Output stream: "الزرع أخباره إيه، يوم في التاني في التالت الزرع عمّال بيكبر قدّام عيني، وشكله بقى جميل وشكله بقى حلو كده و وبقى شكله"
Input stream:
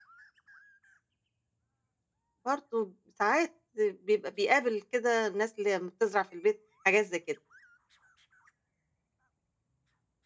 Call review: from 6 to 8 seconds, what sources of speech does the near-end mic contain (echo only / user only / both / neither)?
user only